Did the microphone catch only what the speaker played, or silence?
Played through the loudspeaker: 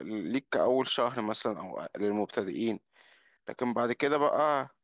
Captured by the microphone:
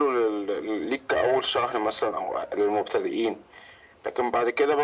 Yes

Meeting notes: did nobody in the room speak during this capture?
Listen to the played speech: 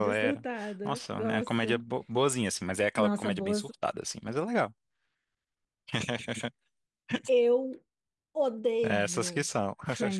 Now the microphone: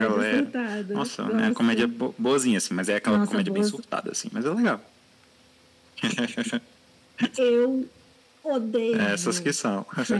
Yes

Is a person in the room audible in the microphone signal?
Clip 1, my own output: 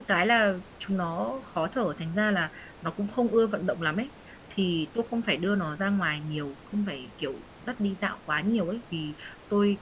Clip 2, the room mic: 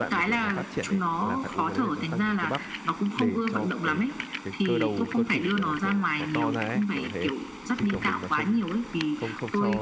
Yes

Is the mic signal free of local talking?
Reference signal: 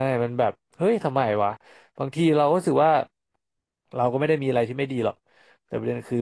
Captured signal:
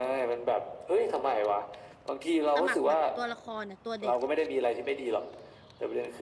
No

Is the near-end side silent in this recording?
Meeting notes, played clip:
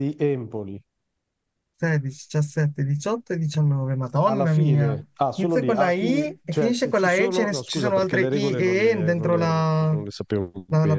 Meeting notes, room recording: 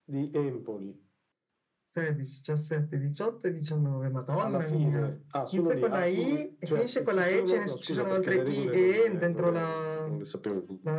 Yes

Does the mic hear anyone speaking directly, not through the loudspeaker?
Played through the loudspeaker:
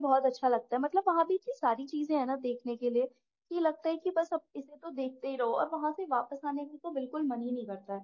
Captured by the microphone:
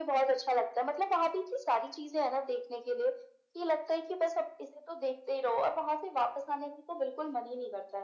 No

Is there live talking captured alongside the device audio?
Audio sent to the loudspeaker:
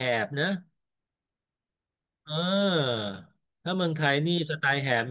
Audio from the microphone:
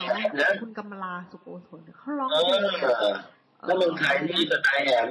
Yes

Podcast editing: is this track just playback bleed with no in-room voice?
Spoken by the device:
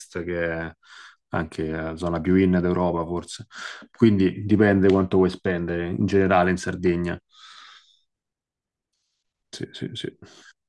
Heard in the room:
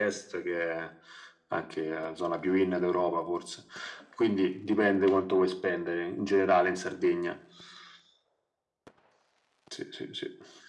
Yes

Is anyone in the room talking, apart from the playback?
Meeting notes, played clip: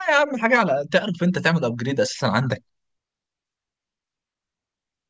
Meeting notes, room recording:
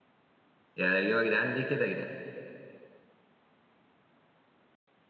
Yes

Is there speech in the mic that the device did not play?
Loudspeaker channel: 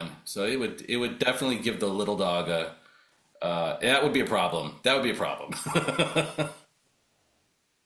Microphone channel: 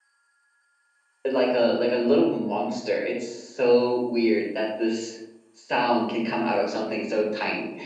Yes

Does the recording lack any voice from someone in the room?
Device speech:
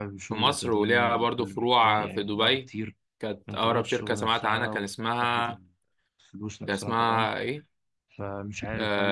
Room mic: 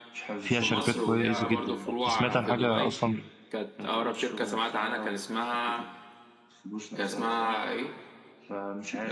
No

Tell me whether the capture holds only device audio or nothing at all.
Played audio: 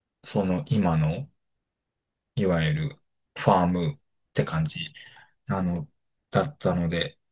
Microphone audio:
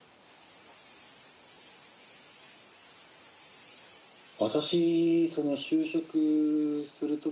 No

